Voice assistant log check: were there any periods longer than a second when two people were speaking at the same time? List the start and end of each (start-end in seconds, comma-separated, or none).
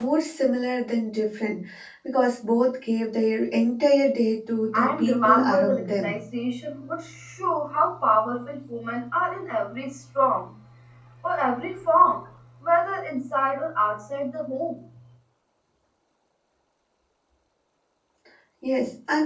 4.7-6.1